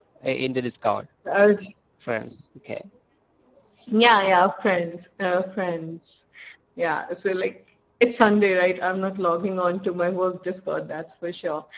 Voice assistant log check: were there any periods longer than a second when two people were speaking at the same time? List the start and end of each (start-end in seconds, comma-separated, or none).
none